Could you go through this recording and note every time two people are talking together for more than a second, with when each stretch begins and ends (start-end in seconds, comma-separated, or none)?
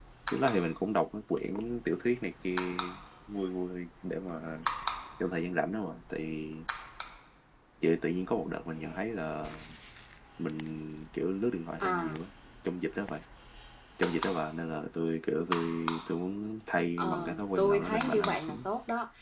17.0-18.6